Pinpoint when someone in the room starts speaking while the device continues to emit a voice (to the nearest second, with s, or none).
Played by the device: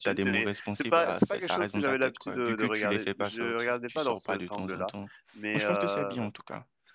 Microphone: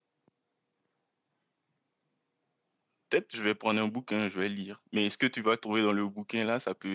3 s